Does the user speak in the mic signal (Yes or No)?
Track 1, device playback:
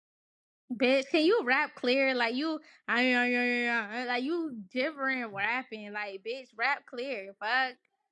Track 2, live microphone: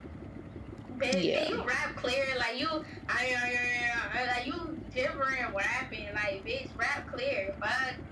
Yes